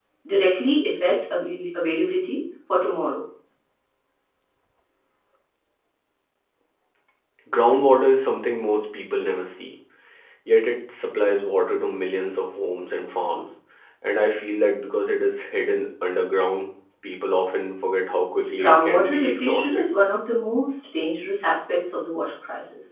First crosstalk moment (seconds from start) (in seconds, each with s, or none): 18.6 s